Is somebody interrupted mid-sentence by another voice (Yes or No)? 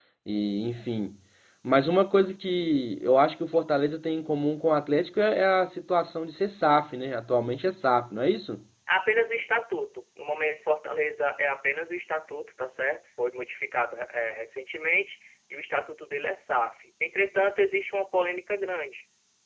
No